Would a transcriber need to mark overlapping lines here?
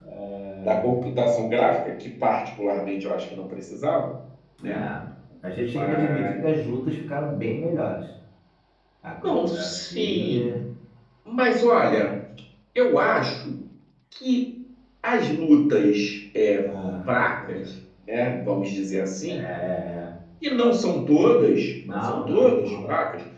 Yes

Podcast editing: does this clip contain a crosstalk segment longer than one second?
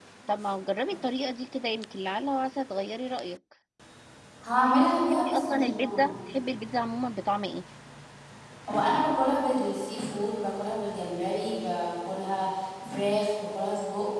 Yes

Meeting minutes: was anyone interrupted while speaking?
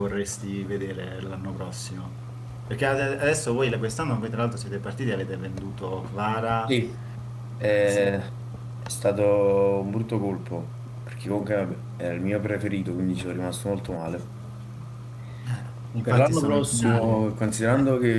Yes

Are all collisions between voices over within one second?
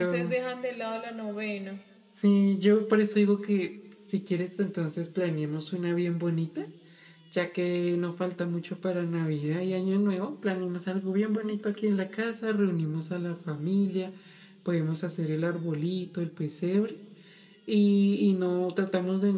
Yes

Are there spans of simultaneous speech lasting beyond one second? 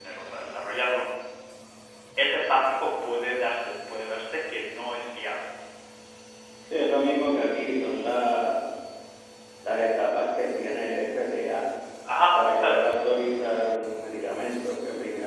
No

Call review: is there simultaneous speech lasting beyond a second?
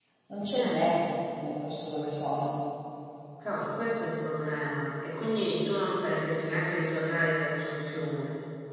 No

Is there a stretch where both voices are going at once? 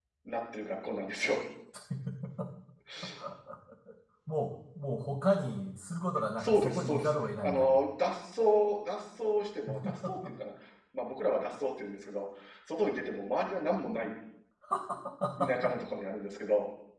Yes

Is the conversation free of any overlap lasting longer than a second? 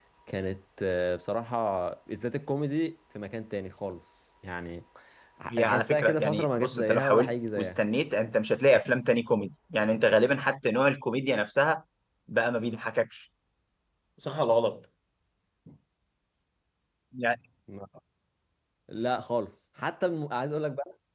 No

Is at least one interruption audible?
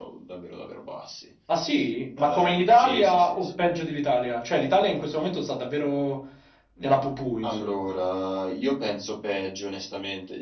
Yes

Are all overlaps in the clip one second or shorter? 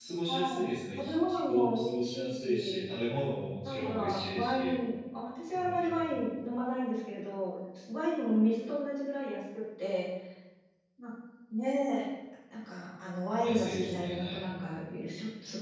No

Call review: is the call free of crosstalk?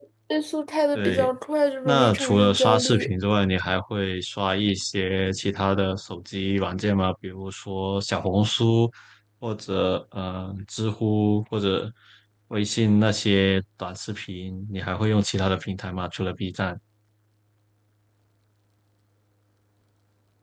No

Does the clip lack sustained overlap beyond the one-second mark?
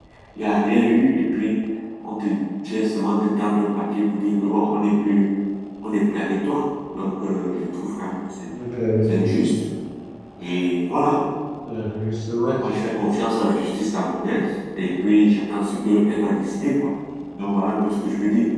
Yes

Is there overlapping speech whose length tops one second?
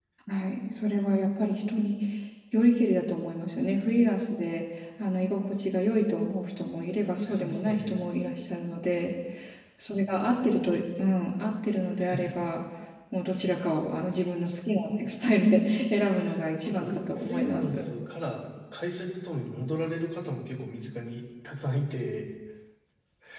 Yes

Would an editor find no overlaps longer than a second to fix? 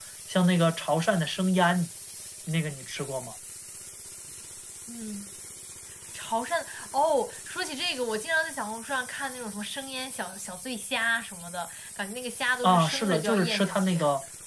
No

